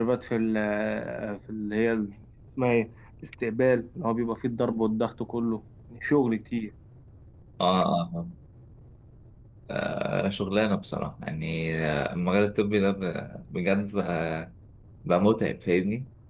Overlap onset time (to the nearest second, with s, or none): none